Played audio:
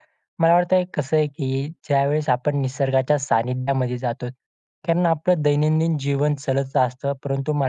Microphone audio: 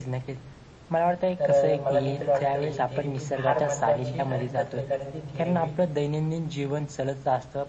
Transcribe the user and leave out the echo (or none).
तर अ, मला देखील वाटतं ही थेरपी फार महत्त्वाची आणि प्रत्येकाने ती थेरपी